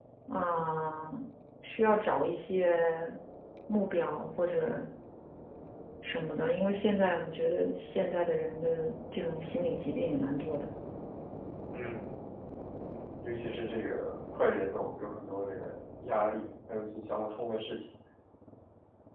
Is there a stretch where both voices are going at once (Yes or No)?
No